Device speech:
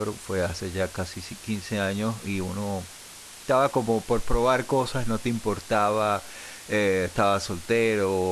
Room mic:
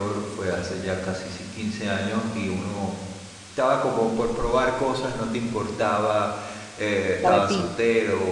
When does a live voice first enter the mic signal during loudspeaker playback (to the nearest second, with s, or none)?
7 s